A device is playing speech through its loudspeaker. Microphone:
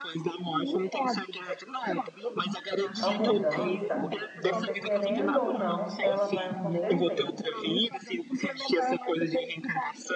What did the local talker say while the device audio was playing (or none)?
A mudança, você querendo ou não, ela vai acontecer.